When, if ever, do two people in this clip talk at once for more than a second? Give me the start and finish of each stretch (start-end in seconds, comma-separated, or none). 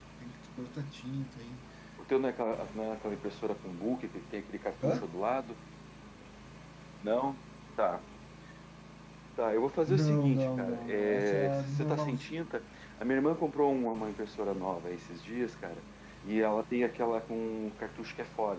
9.9-12.4